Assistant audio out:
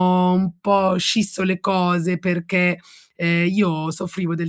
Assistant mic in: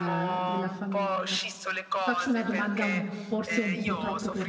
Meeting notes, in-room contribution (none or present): present